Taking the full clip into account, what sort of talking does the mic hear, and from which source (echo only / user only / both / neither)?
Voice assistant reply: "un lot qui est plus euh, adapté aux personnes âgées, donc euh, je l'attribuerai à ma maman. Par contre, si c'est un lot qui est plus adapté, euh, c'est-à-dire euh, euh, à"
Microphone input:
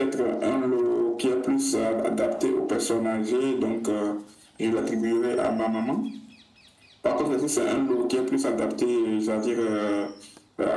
echo only